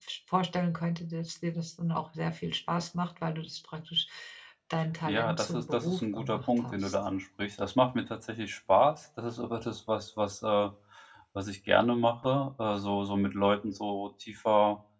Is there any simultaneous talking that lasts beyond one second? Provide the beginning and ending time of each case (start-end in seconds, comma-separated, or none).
5.1-7.0